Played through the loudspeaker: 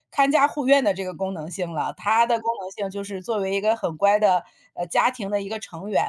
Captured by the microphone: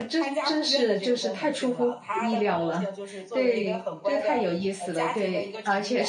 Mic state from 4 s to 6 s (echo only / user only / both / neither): both